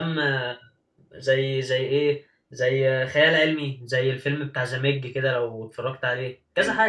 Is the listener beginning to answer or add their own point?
Yes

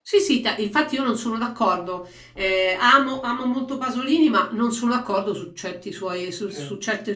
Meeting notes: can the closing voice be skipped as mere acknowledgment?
Yes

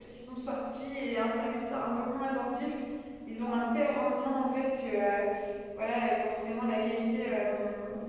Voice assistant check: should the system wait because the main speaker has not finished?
Yes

